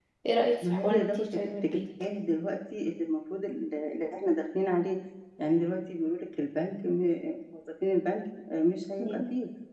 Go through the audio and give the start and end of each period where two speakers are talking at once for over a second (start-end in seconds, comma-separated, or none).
0.6-1.8